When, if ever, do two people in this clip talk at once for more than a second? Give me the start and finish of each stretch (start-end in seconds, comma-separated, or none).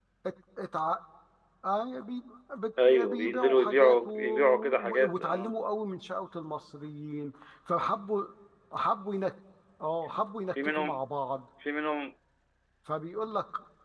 2.8-5.5